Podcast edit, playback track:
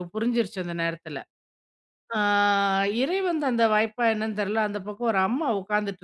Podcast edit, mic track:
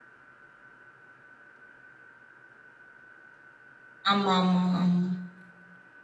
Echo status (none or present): none